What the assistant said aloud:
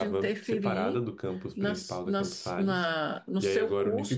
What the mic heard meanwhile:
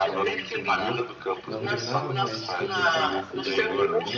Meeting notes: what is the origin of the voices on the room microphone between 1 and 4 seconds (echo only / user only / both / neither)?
both